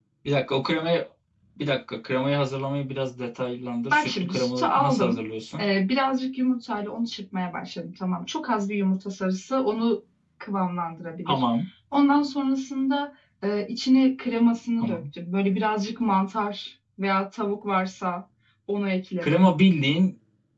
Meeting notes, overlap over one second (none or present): present